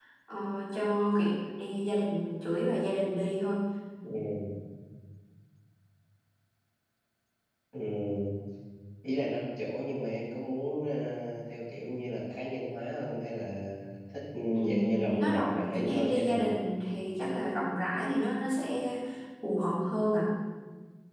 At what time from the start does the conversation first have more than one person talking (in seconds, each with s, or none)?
14.5 s